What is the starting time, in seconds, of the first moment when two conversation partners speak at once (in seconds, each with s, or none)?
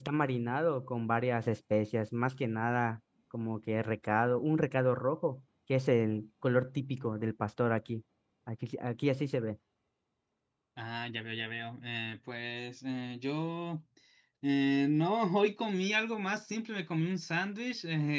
none